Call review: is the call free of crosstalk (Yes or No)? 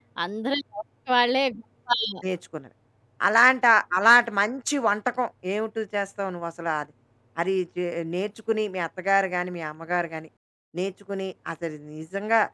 Yes